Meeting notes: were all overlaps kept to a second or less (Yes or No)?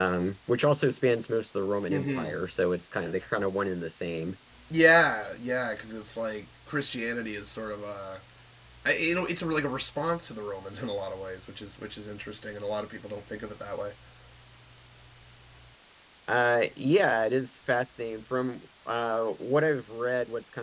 Yes